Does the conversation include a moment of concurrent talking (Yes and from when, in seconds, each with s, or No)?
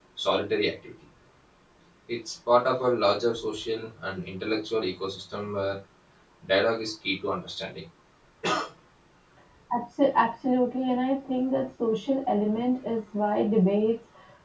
No